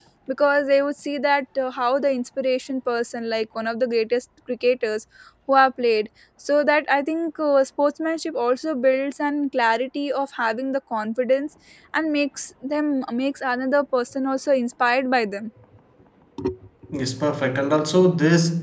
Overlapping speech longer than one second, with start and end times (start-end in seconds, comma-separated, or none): none